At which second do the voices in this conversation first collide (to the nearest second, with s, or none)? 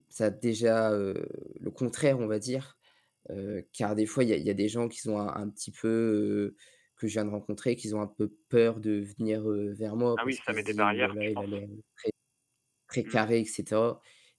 10 s